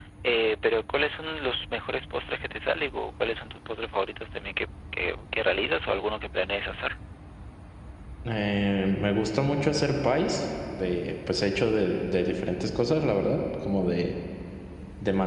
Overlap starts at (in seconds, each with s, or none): none